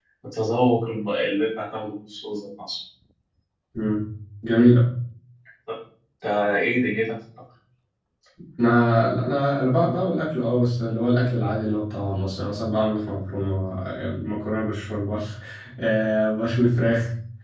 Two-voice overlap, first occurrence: none

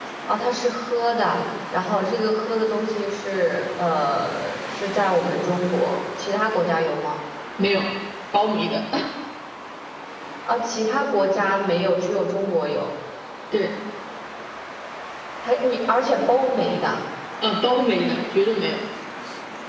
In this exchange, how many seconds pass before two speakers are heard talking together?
none

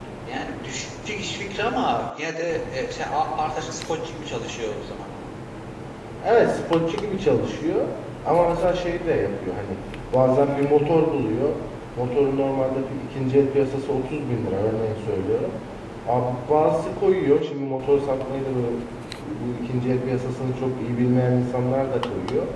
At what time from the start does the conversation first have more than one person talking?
none

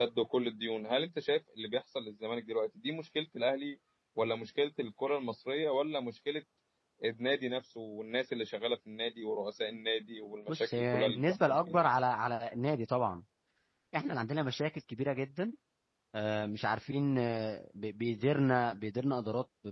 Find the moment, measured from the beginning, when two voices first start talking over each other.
10.5 s

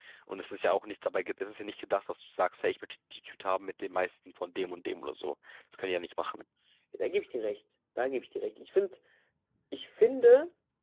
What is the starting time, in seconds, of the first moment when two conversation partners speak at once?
none

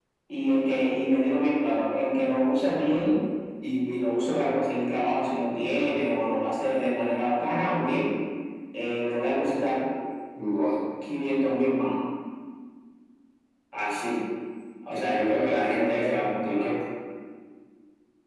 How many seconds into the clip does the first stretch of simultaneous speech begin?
14.9 s

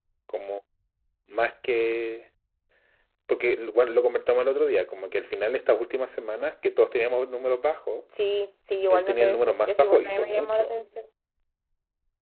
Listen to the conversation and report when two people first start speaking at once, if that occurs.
8.9 s

